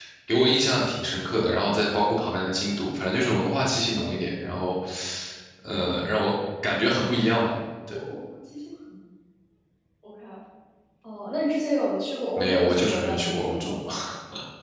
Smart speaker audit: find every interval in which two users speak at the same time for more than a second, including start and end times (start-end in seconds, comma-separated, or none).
12.4-13.8